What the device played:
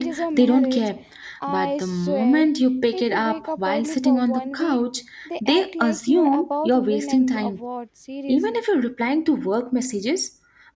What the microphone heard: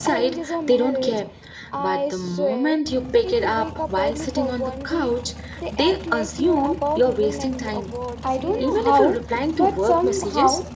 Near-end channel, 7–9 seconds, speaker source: both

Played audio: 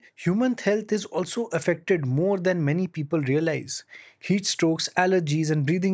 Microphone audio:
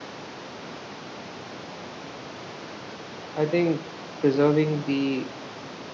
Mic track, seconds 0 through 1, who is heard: neither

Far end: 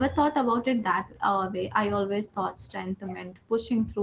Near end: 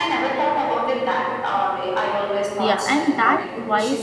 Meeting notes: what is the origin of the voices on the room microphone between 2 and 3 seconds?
both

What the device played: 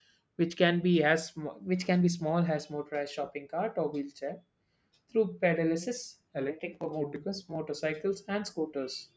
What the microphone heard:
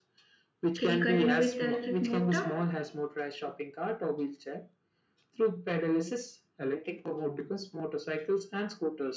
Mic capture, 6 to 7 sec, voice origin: echo only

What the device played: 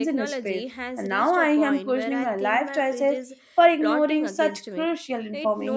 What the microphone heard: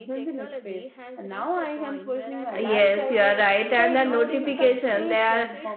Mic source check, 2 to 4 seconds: both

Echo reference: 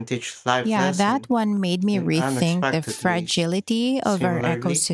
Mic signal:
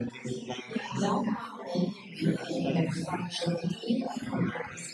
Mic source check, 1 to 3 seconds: echo only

